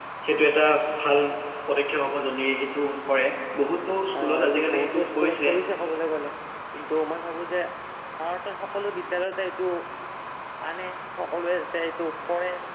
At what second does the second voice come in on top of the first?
4.1 s

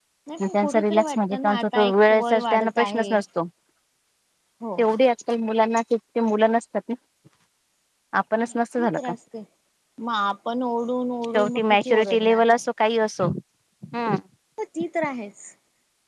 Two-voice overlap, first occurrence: 0.5 s

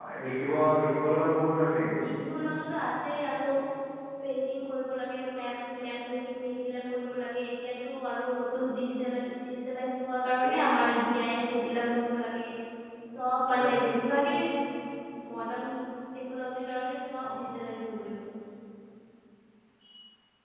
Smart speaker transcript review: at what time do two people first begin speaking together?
none

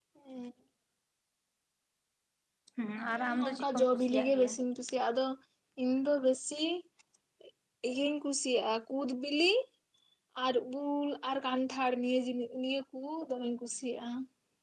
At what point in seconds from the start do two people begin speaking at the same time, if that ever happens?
3.2 s

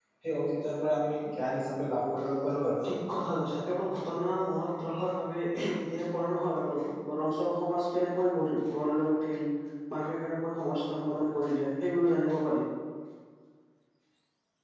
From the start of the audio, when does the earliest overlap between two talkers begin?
none

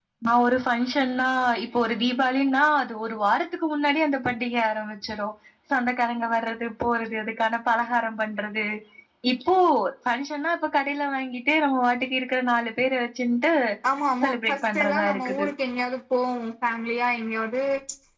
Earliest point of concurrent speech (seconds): 14.2 s

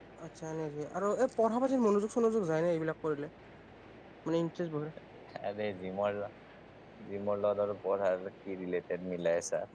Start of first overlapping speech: none

